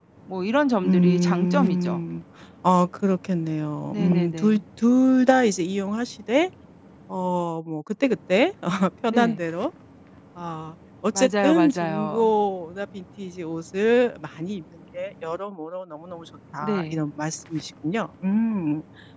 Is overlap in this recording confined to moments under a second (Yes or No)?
No